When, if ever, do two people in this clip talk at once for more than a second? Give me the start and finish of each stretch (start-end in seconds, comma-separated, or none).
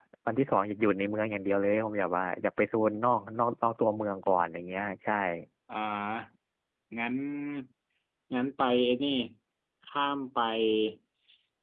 none